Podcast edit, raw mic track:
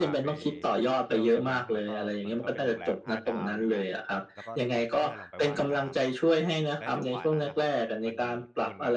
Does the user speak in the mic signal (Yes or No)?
Yes